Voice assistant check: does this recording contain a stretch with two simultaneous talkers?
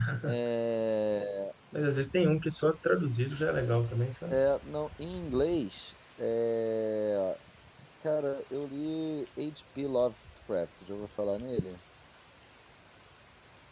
No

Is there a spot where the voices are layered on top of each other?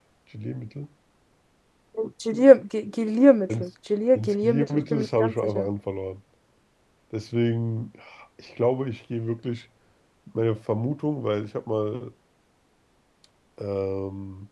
Yes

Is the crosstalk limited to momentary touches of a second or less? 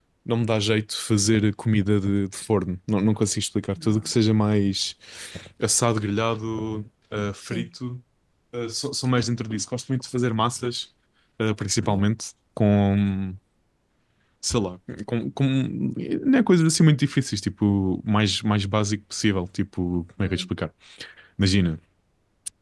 Yes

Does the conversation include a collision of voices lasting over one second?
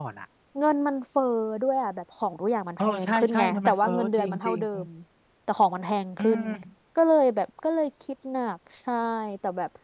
Yes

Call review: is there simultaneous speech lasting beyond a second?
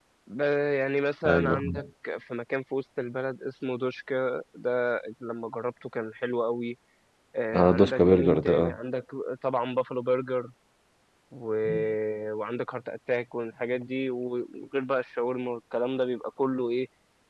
Yes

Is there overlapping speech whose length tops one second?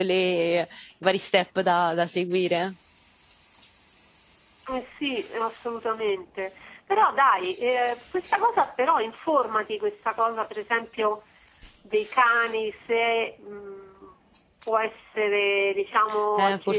No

